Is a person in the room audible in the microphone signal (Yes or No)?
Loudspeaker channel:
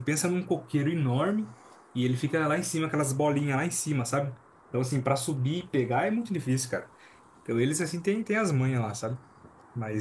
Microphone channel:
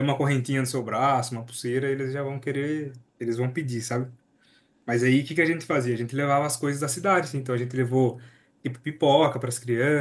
Yes